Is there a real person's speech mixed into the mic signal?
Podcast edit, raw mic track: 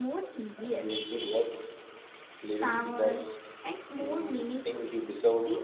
Yes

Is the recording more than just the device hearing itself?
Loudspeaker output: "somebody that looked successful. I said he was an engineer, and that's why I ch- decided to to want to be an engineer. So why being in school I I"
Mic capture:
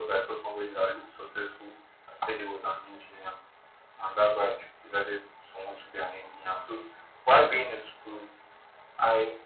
No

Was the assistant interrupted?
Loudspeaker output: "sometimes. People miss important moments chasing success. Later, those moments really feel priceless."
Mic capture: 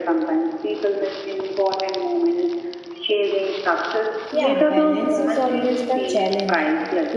Yes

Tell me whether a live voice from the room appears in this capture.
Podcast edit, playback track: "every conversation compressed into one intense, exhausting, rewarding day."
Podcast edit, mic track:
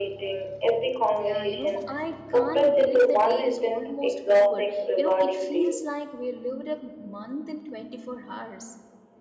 Yes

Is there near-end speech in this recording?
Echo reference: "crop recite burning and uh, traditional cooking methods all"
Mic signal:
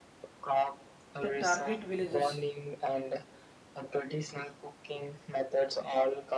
Yes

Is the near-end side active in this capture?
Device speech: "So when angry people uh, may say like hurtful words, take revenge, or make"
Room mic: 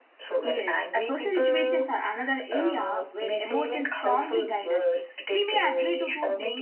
Yes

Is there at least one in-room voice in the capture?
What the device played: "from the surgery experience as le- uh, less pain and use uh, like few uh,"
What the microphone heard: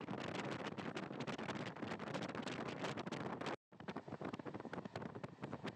No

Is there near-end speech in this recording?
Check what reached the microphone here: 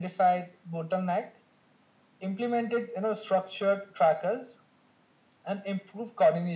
No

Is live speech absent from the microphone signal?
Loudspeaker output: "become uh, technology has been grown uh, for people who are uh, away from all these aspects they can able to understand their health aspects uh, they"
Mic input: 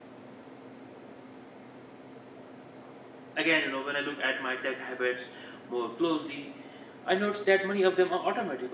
No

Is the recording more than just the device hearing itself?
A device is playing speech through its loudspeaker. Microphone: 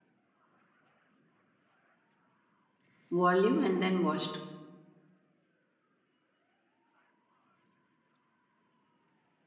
Yes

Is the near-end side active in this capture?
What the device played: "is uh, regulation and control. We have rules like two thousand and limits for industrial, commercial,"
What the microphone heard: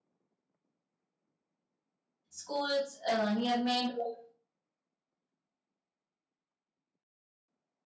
Yes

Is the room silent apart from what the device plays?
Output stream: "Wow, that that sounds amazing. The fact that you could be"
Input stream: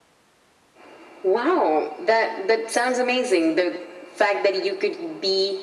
Yes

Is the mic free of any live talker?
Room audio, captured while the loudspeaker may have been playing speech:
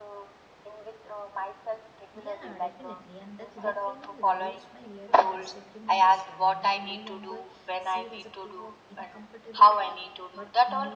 No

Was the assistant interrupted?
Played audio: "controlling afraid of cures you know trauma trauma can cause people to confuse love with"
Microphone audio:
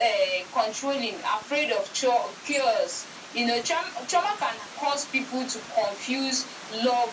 No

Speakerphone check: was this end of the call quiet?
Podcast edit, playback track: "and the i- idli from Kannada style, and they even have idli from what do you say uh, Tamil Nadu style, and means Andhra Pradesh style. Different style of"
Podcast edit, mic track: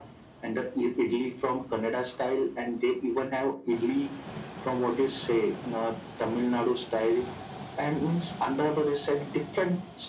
Yes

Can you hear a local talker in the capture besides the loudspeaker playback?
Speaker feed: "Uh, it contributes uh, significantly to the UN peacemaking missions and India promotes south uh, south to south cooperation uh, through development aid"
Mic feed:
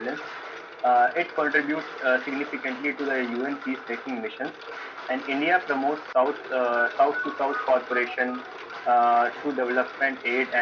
No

